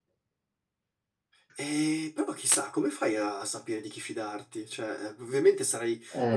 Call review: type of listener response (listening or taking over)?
listening